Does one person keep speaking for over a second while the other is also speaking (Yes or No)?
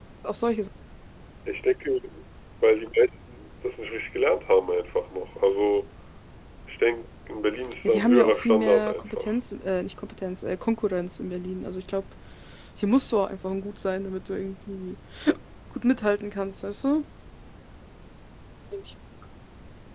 Yes